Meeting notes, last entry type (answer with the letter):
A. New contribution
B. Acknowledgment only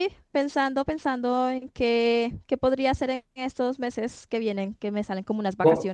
A